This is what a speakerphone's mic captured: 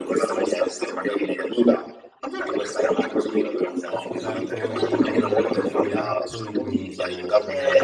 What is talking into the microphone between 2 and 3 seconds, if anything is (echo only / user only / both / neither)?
echo only